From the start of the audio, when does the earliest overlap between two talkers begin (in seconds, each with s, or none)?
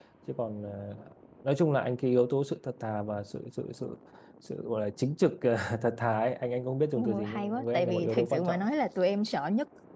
7.0 s